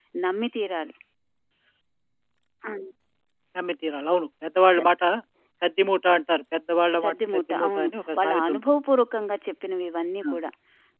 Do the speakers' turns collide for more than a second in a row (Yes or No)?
Yes